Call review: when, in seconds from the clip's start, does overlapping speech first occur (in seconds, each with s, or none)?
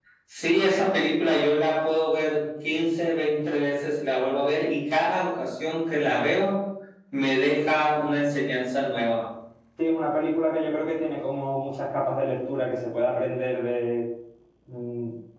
none